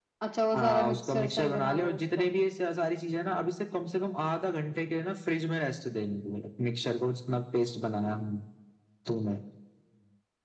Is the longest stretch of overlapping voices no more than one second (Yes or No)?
No